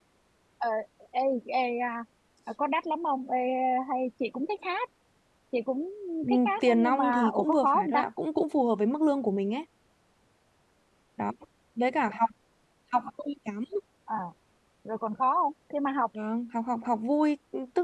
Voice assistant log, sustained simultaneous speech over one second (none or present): present